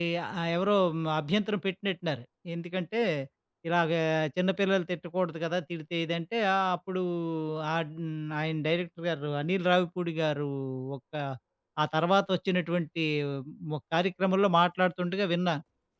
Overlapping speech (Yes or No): No